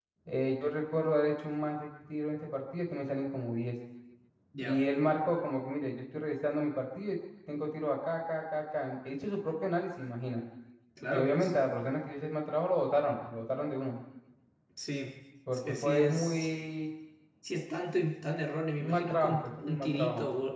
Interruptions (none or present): present